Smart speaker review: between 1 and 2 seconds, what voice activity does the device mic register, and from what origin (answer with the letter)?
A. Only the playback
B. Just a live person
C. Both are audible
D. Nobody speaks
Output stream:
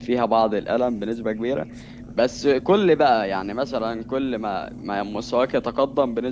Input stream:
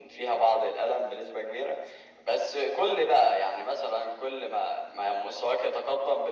A